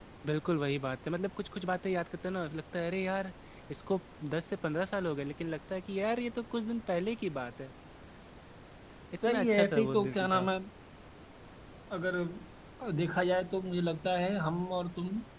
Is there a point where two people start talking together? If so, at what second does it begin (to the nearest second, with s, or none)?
9 s